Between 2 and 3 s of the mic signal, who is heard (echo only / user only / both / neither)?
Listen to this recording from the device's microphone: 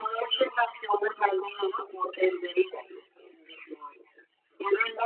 echo only